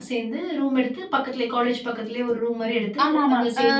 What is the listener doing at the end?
taking over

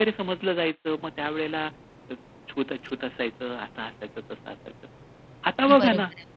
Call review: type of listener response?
listening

